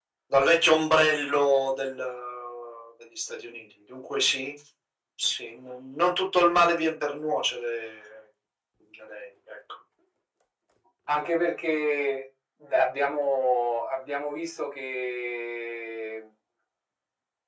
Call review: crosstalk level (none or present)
none